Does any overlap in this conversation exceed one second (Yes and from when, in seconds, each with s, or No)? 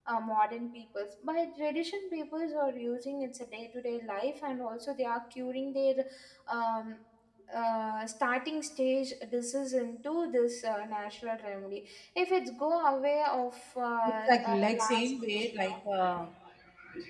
Yes, from 14.1 s